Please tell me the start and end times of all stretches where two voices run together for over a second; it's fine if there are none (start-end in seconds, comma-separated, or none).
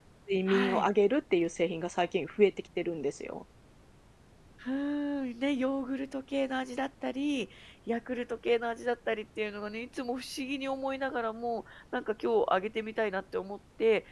none